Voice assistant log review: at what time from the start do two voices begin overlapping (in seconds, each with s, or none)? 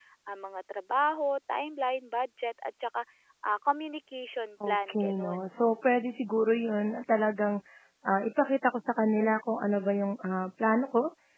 4.6 s